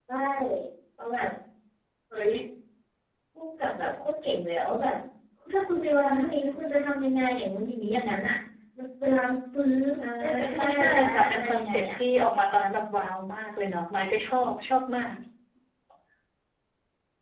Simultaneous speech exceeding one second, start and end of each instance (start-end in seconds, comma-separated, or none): 10.5-12.0